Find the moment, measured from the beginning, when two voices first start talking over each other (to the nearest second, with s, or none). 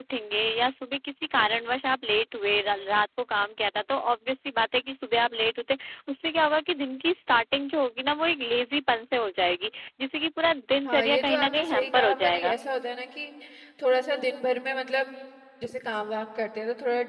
11 s